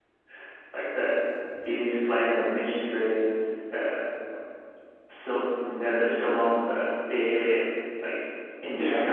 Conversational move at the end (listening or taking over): listening